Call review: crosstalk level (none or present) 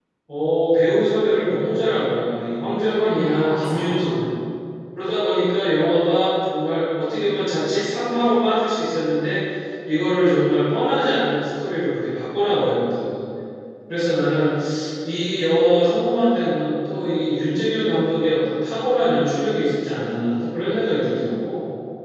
present